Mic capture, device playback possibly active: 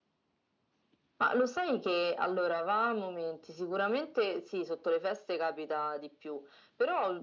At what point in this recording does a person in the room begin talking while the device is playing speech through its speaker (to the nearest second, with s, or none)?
none